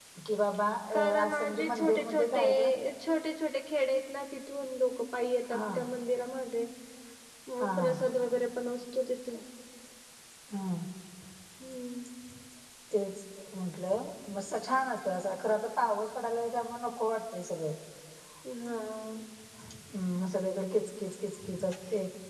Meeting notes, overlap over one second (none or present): present